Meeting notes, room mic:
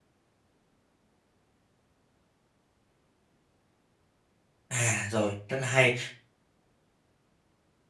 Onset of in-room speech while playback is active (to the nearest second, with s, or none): 5 s